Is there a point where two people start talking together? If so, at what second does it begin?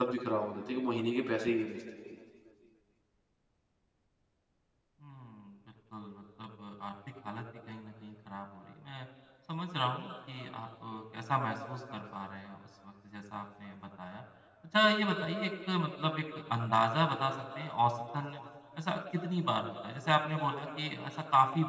none

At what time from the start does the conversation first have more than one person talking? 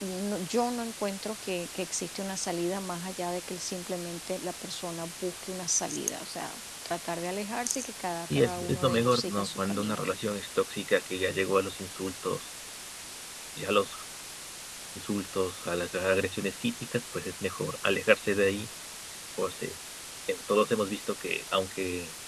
8.3 s

